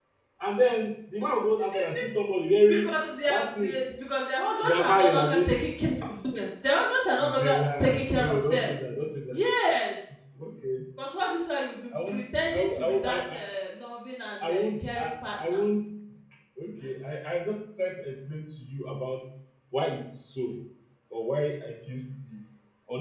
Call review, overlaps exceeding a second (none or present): present